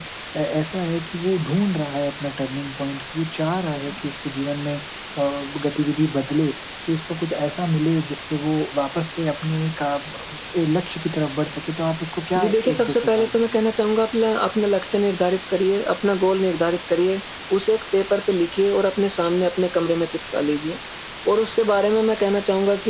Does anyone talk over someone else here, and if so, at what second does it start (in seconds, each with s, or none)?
12.3 s